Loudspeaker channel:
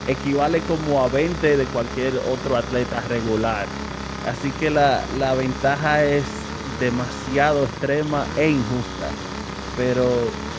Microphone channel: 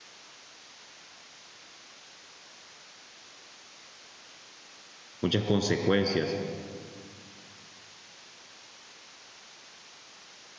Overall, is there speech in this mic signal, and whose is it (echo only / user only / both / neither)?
user only